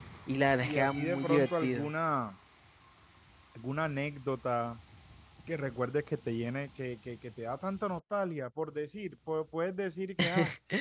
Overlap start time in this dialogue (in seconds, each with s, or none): 0.6 s